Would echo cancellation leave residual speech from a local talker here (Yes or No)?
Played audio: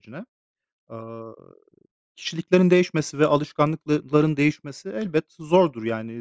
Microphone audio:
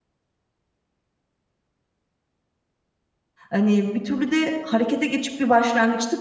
Yes